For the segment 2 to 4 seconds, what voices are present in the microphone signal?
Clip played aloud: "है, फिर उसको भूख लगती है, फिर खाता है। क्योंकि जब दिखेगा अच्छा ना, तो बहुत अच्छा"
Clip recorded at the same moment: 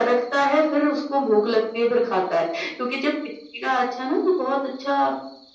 echo only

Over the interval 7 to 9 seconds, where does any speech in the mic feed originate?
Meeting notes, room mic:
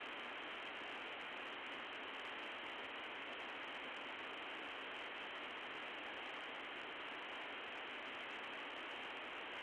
neither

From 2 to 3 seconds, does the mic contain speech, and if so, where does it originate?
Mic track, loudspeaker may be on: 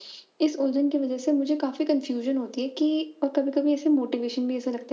echo only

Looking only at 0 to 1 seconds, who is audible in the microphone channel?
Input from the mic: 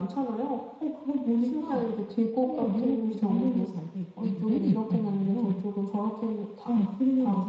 echo only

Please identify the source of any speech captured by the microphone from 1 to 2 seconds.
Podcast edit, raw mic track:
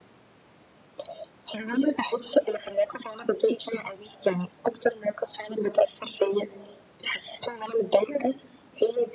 echo only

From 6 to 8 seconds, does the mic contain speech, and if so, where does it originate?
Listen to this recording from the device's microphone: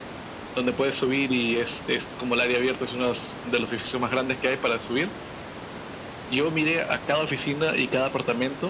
echo only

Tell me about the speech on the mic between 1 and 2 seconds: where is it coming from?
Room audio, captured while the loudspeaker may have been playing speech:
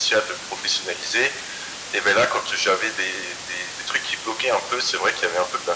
echo only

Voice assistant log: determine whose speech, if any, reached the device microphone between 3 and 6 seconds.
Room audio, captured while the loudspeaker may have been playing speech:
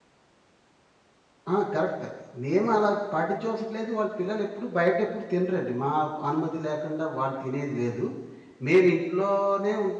user only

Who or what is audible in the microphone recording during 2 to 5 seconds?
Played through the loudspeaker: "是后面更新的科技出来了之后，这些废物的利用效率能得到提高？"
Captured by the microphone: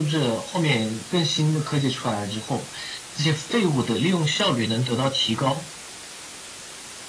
echo only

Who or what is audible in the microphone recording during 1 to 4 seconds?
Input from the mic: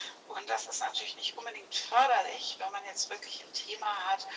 echo only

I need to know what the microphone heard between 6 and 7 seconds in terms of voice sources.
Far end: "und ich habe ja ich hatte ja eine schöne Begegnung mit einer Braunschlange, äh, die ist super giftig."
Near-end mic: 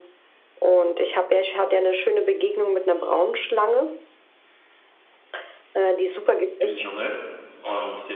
both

